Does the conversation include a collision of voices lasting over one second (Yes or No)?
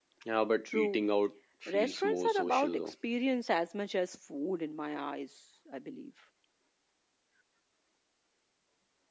Yes